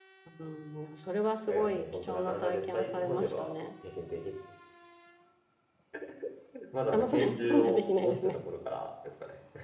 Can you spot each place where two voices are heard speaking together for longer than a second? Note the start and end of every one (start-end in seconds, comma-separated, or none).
1.5-3.5, 6.9-8.4